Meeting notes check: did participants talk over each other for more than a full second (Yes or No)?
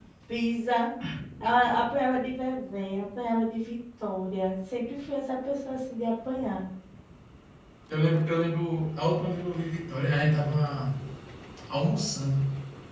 No